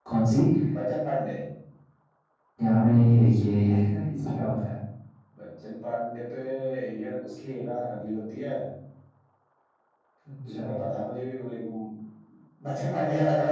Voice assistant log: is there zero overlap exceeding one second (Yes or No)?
Yes